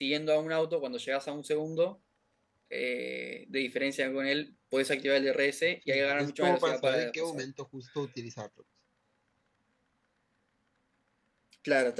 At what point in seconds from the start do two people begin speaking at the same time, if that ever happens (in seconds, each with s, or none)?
5.9 s